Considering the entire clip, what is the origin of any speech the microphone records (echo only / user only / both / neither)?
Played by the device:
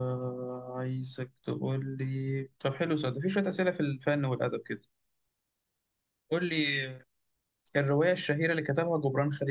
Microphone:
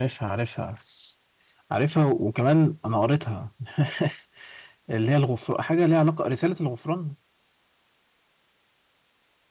user only